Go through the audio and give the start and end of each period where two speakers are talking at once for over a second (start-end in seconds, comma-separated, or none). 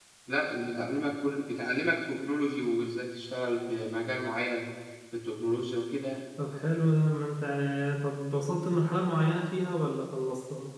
none